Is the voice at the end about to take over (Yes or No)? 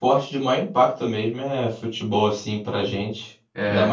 No